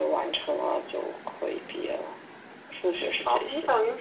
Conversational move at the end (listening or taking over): taking over